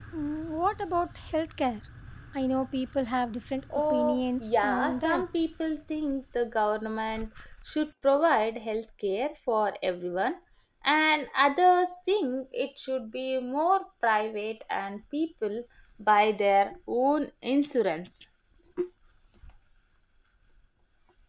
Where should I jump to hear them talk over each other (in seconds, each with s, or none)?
3.7 s